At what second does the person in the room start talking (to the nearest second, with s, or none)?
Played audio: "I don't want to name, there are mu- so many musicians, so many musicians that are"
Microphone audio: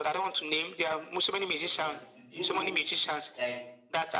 2 s